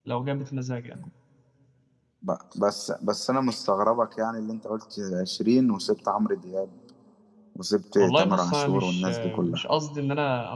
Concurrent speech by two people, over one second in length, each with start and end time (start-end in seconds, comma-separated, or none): 8.0-9.6